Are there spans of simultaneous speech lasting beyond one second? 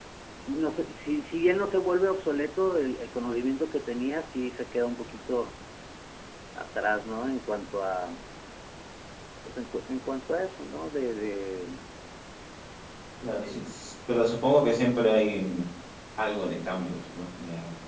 No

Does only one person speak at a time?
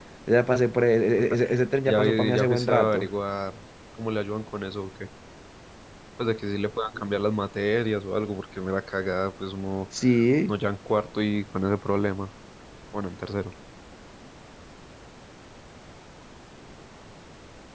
No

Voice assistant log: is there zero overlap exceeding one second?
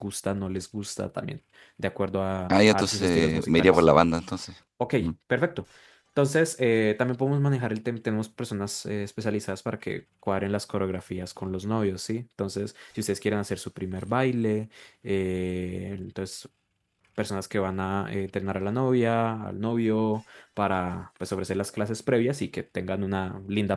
No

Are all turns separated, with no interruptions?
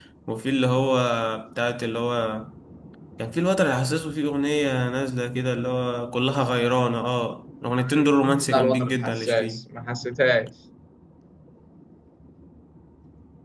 No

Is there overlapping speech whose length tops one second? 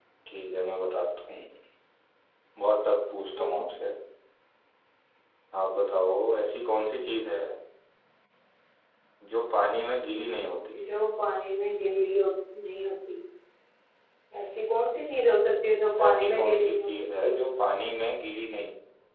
Yes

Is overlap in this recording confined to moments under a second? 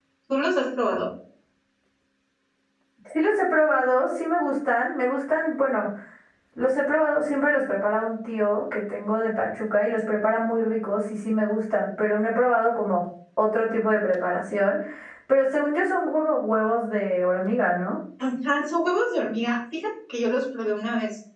Yes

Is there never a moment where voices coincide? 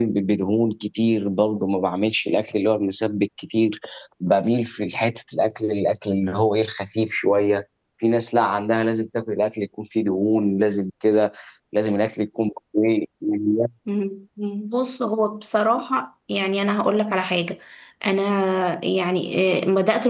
Yes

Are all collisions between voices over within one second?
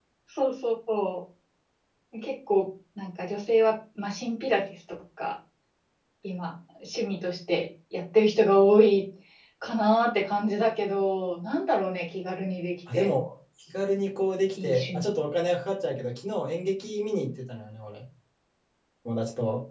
Yes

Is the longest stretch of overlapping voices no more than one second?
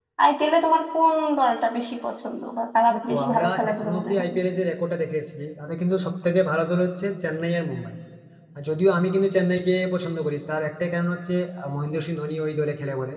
No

